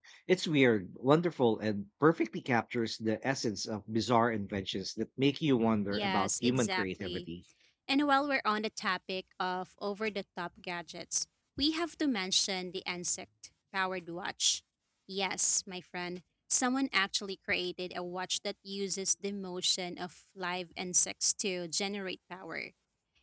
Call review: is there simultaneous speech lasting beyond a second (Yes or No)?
Yes